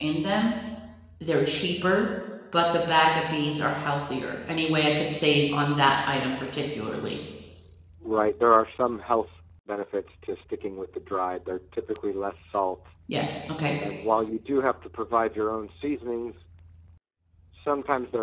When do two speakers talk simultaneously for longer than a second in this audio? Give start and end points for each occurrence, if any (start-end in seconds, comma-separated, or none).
none